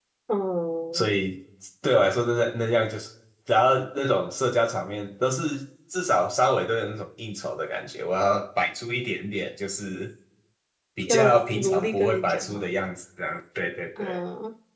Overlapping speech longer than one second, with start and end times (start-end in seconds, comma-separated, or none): 11.1-12.7